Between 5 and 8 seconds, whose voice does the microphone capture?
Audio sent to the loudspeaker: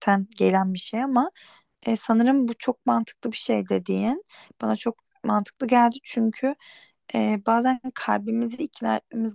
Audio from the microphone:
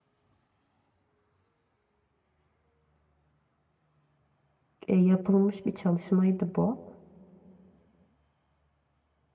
user only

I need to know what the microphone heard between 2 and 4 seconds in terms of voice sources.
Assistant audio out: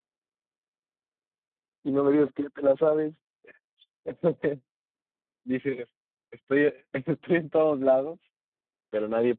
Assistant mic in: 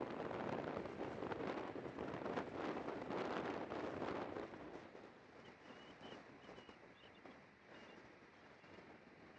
neither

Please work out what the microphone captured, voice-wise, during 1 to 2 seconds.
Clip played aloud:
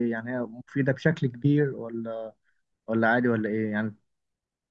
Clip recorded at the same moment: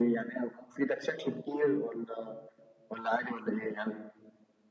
echo only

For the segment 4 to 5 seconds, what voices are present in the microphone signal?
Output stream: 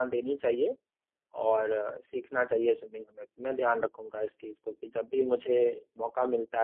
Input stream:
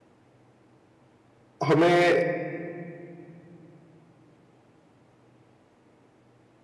neither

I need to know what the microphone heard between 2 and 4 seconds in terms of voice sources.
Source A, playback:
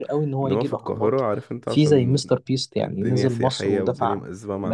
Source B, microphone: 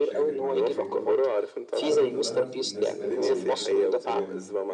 both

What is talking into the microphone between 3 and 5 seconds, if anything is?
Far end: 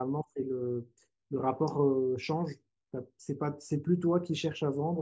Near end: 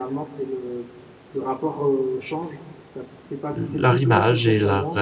both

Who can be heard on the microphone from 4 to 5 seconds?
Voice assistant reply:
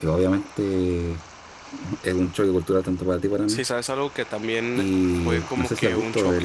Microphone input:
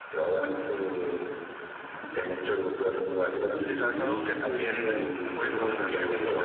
both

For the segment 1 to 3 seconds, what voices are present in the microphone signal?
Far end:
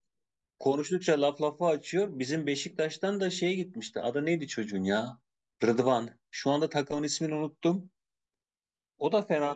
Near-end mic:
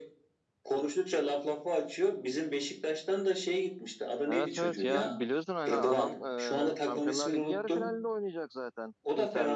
echo only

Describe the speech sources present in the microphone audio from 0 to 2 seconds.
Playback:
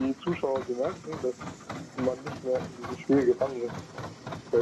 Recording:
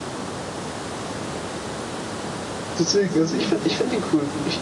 neither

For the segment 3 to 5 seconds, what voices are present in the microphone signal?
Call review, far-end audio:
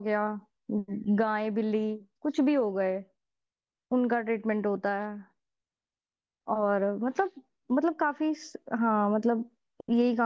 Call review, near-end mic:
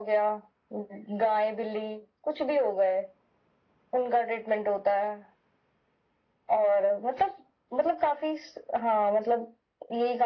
echo only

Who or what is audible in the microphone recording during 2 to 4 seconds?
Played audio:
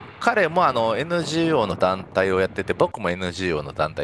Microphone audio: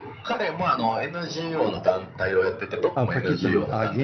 both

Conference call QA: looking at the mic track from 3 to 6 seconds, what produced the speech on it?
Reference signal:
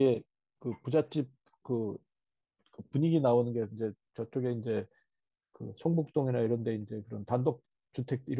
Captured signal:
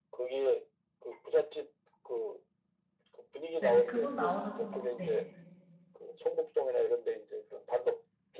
both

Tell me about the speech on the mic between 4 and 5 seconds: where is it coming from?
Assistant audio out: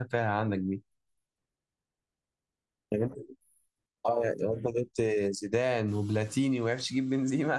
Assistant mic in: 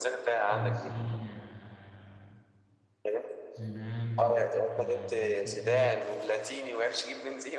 both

